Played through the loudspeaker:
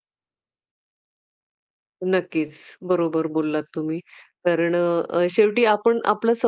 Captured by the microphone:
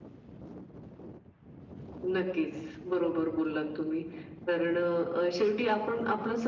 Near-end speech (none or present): none